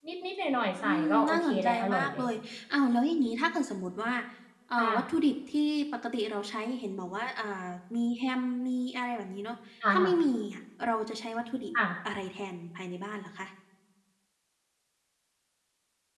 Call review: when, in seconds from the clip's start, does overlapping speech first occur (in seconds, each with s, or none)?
0.8 s